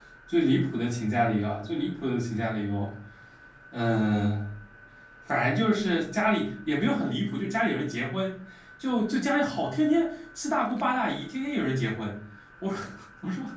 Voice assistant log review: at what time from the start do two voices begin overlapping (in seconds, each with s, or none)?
none